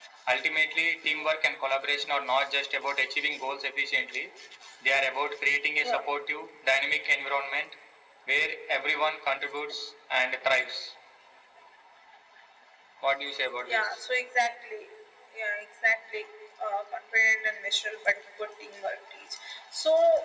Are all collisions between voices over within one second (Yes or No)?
Yes